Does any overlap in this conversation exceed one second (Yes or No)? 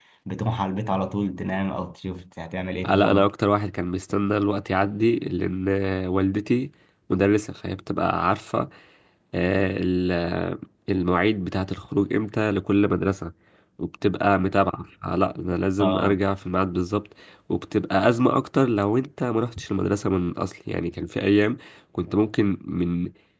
No